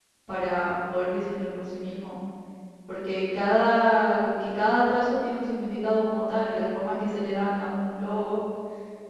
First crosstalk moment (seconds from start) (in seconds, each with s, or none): none